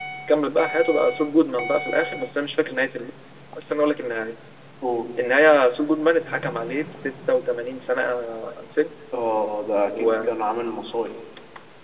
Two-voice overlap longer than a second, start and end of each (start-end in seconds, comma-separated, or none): none